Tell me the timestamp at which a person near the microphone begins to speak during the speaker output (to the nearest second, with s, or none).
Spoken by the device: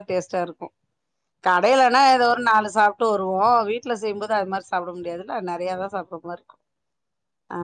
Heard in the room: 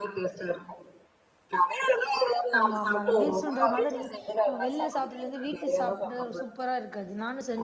3 s